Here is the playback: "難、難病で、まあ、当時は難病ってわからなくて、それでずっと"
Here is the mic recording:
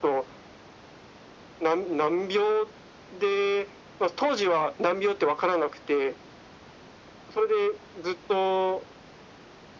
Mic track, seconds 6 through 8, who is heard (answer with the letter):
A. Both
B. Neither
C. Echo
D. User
C